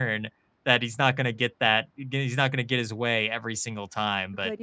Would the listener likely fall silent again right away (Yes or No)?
No